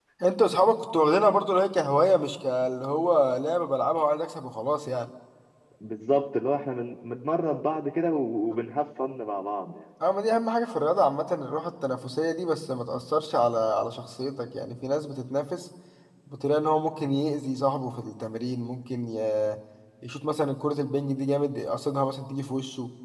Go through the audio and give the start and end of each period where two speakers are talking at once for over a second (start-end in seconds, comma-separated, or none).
none